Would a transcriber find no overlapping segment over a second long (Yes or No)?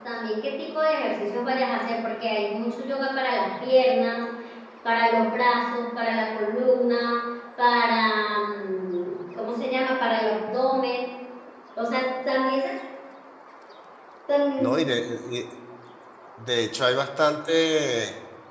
Yes